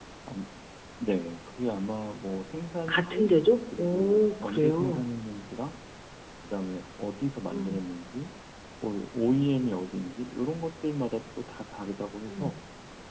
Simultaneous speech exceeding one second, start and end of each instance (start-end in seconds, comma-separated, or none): 3.8-5.0